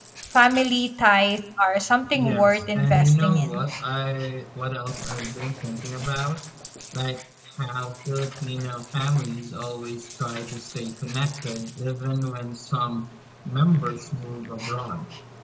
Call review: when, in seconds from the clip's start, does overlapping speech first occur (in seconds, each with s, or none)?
2.1 s